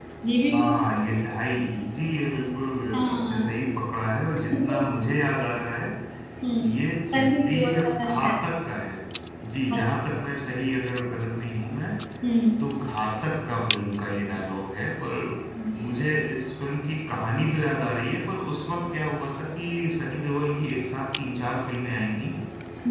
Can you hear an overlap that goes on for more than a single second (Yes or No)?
Yes